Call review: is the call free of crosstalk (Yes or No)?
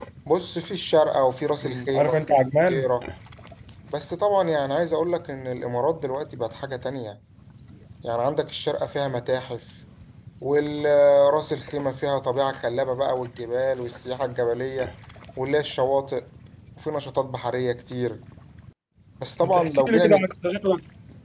No